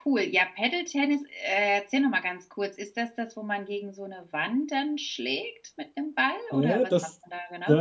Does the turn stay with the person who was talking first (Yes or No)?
No